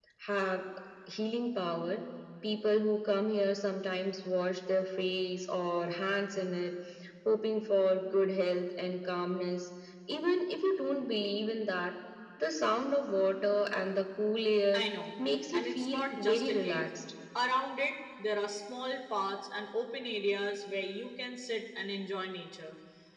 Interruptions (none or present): present